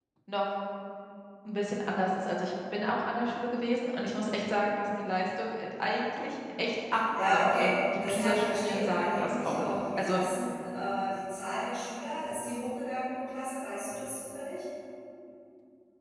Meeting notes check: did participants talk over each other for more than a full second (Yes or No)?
Yes